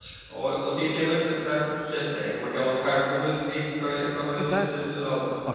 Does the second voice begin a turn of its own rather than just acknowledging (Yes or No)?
Yes